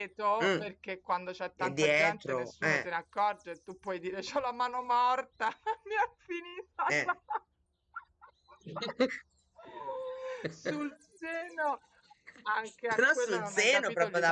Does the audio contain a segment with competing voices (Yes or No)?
Yes